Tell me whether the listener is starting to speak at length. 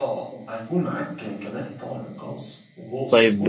Yes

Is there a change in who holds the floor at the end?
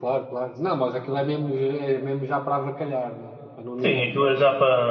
Yes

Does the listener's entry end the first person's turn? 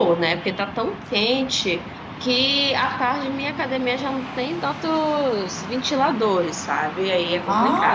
Yes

